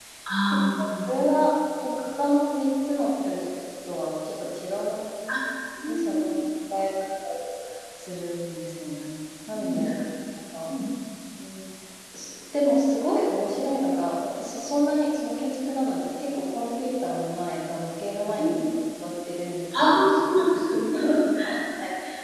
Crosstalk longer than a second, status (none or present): none